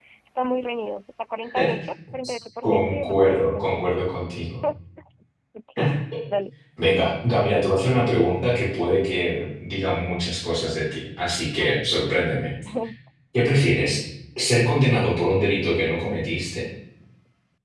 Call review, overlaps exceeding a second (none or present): present